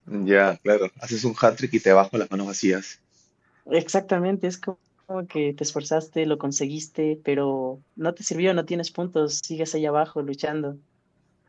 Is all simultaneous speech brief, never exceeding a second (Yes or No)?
Yes